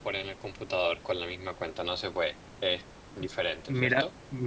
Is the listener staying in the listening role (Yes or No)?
No